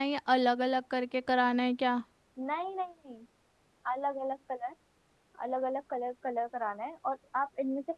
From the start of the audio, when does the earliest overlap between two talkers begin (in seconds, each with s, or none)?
none